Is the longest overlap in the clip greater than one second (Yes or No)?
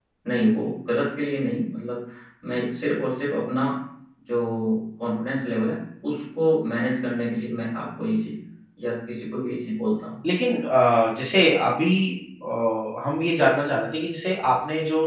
No